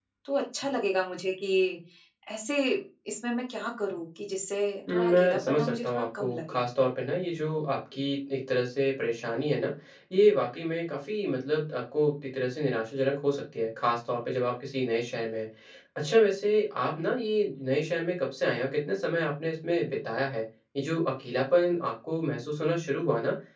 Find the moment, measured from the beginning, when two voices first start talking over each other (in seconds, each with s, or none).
4.9 s